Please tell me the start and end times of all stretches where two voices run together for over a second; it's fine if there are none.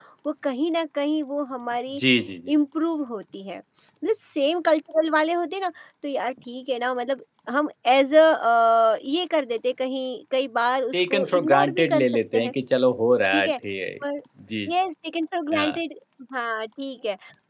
10.9-12.5

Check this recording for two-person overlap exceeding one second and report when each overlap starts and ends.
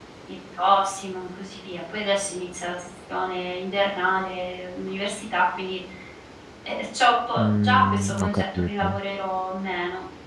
7.4-9.0

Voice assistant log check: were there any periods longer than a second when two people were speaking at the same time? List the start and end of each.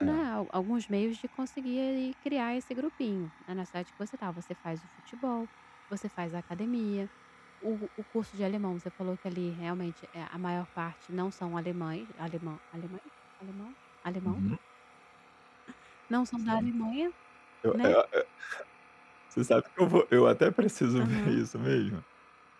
none

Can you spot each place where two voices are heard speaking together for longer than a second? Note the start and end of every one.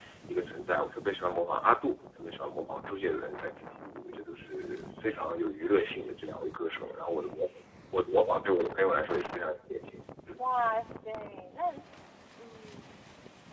none

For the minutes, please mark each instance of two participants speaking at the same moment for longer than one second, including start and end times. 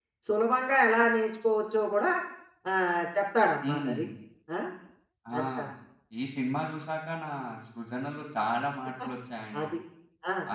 none

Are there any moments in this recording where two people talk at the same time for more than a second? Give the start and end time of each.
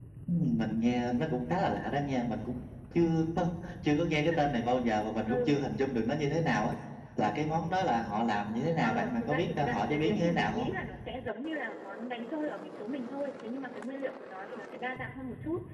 8.8-10.7

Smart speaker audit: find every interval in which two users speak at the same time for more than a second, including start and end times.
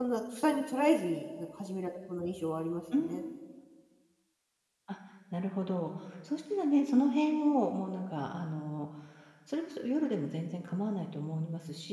none

